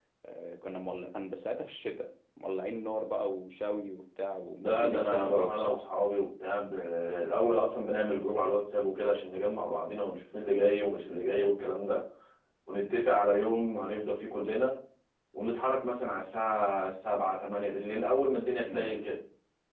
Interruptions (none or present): present